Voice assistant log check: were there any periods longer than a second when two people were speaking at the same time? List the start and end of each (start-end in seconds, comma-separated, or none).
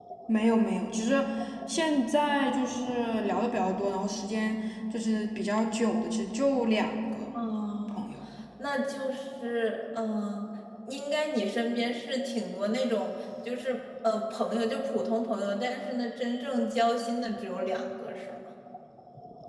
none